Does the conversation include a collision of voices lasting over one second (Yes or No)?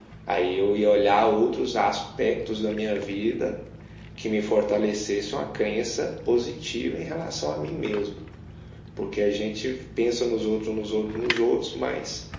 No